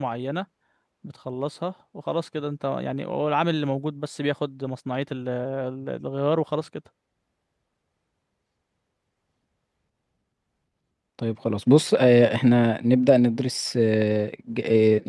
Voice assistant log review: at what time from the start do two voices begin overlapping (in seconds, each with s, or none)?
none